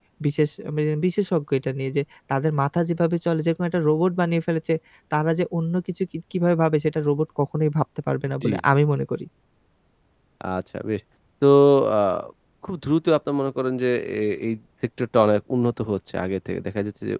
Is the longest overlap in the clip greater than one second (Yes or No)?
No